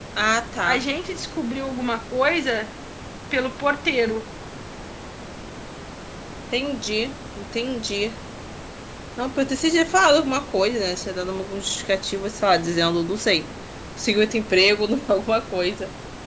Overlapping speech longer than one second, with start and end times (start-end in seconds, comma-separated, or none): none